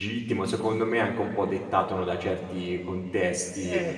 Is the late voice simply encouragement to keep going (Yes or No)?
Yes